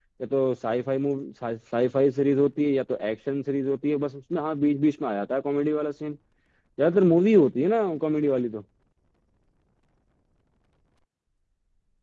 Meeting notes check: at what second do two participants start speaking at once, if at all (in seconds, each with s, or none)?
none